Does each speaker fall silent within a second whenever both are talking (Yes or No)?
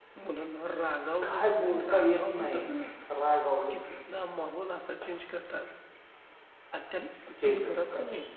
No